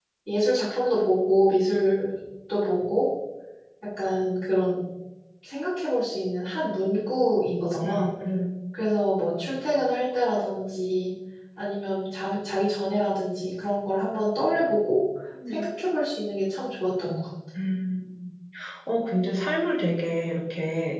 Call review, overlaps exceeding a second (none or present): none